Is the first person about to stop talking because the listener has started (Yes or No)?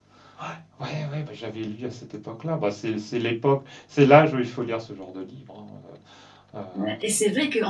Yes